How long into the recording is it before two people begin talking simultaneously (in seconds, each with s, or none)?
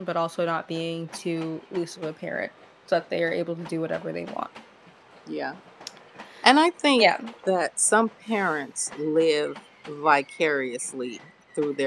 none